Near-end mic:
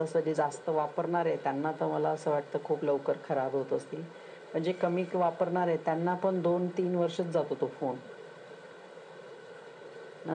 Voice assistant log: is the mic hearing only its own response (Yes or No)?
Yes